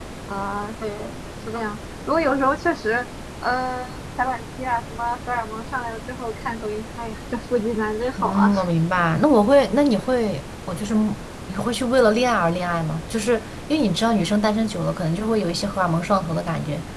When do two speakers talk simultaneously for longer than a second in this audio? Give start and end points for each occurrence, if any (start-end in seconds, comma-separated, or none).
none